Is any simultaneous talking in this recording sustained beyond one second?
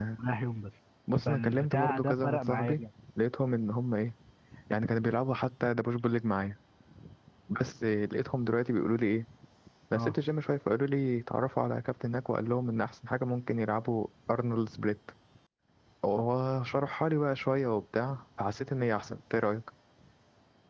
Yes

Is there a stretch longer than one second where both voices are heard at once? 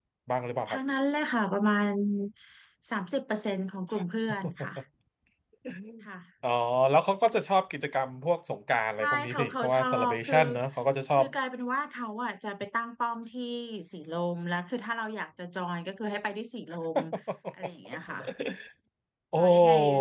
Yes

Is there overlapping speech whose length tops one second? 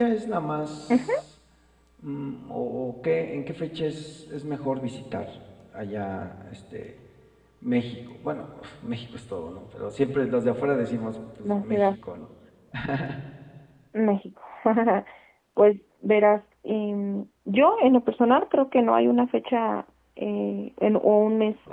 No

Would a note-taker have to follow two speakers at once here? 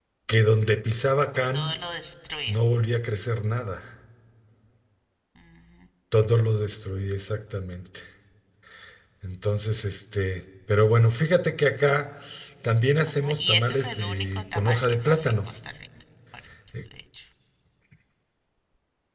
Yes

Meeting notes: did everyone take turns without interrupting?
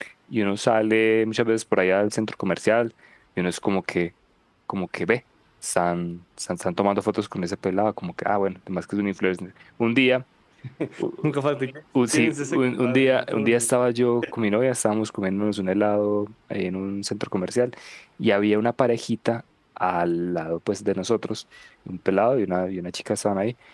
No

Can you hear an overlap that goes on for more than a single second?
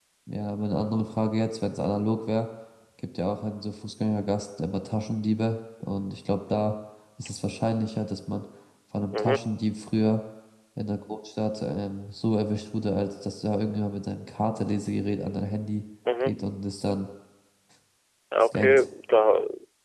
No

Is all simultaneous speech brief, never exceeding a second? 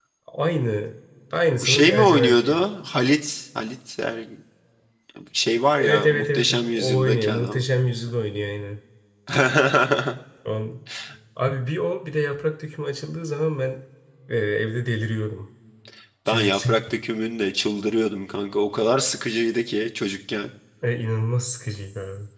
No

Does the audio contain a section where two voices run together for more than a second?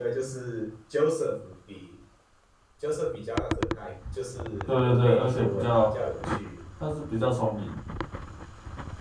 Yes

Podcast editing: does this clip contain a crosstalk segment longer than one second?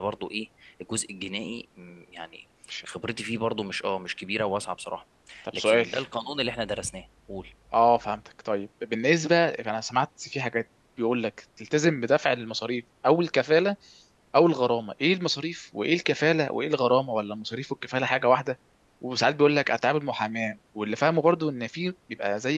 No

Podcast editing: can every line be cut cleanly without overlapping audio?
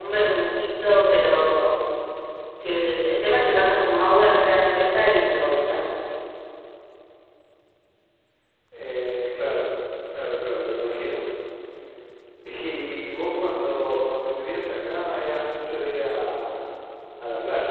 Yes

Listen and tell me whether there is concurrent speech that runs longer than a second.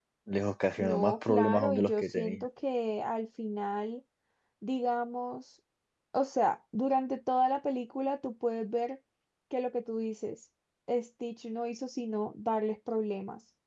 Yes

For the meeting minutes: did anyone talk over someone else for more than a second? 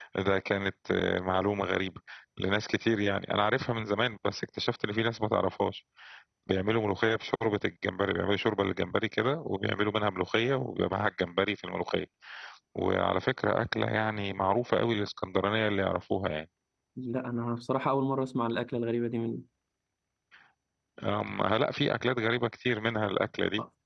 No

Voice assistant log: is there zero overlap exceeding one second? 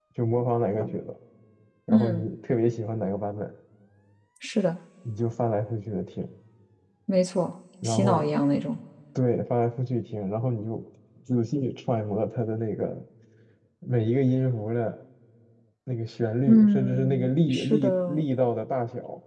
No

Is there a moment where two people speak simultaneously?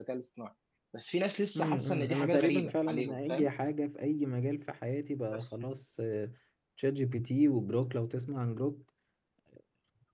Yes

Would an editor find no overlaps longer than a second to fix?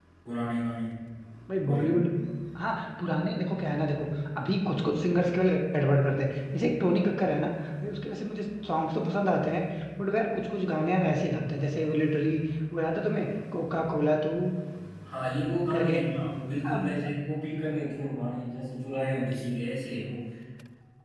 Yes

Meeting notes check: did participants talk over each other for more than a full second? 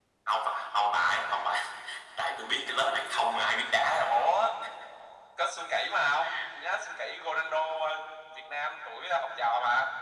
No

